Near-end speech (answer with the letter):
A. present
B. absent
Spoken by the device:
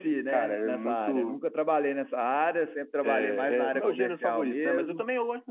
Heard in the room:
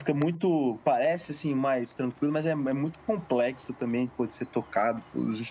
A